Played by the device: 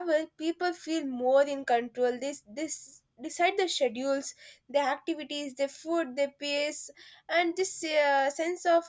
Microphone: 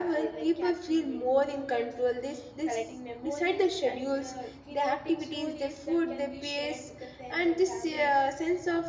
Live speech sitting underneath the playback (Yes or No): Yes